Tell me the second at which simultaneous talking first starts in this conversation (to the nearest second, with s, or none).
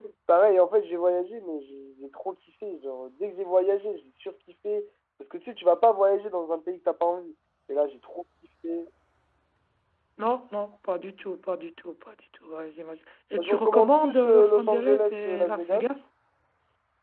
13 s